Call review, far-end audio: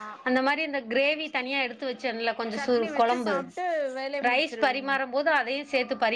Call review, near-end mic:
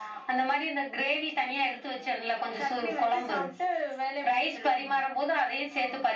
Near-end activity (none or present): none